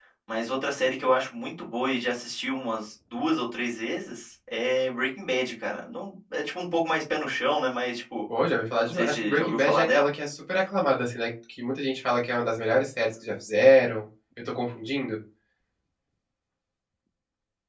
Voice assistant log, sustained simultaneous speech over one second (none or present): present